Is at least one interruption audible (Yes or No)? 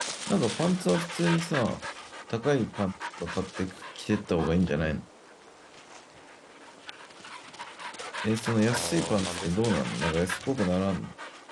Yes